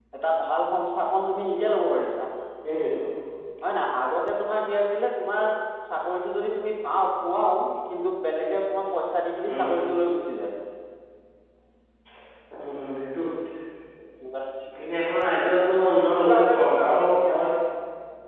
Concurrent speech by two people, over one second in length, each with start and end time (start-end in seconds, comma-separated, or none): 16.1-17.4